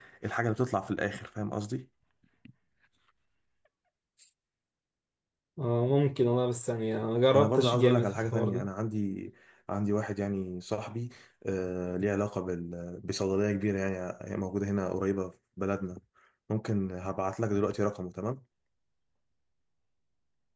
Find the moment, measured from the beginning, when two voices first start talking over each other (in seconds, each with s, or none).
7.3 s